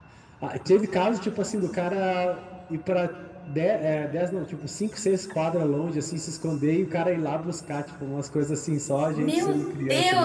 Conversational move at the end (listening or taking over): taking over